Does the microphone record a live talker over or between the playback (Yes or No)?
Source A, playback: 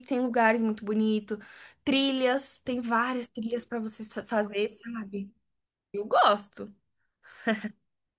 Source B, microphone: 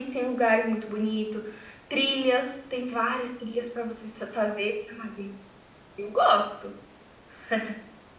No